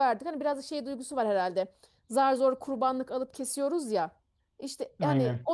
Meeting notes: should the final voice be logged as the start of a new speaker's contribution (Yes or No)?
No